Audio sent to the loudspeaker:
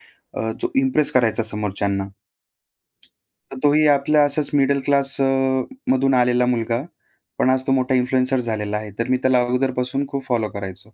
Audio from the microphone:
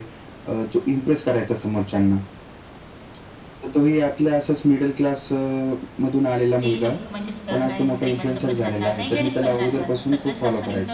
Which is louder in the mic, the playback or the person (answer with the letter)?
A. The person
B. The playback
B